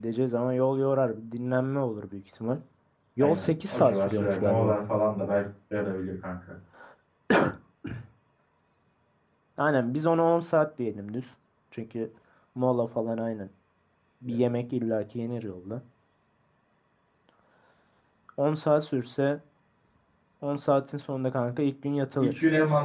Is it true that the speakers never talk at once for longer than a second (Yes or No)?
No